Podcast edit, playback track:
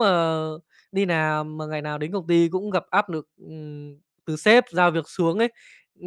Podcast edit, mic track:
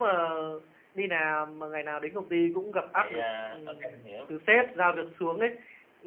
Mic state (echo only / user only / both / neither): both